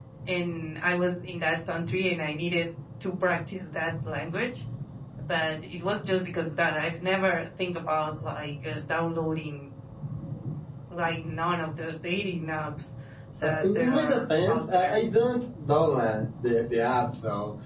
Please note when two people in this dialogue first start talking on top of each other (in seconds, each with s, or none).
13.4 s